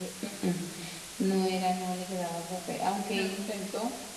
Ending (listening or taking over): listening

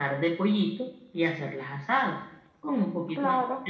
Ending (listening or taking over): listening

